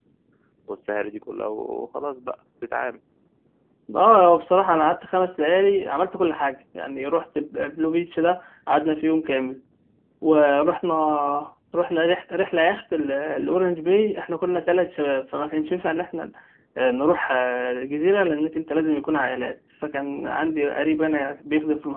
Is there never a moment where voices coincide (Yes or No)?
Yes